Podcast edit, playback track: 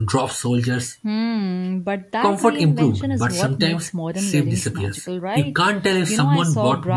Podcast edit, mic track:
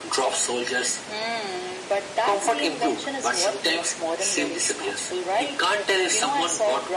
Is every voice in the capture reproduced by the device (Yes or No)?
Yes